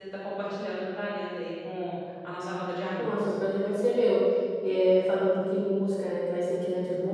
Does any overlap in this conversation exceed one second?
No

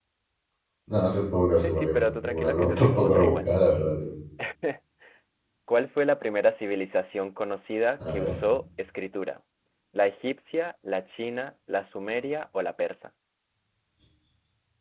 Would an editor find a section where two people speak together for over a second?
Yes, from 1.5 s

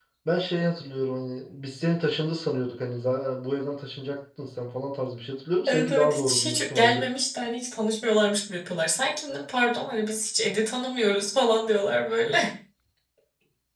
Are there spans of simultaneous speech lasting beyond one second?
Yes, from 5.7 s

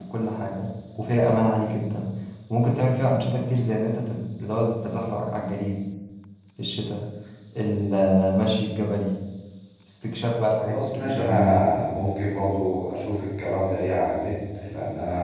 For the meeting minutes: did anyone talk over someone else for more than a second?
Yes, from 10.6 s

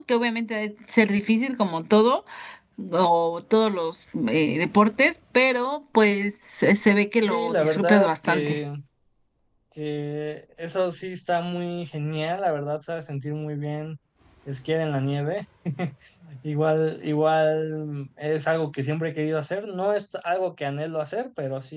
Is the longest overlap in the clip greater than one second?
Yes, from 7.2 s

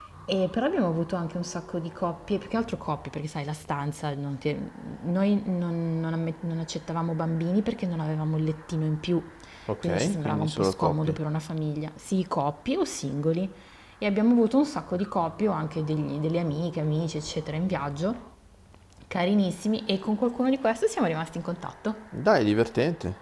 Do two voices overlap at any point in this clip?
Yes, from 9.8 s

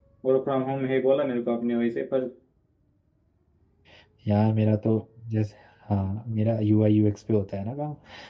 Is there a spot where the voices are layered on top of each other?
No

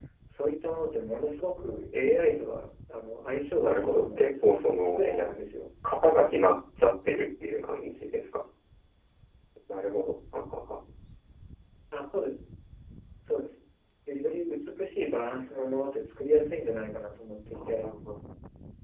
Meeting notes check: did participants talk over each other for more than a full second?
Yes, from 3.6 s

